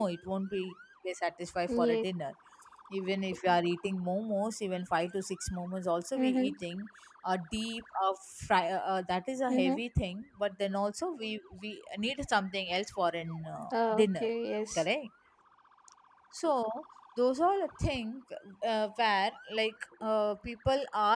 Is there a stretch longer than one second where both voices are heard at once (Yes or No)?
No